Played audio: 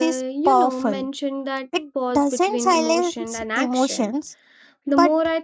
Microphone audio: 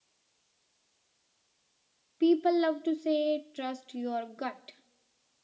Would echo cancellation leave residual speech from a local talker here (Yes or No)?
Yes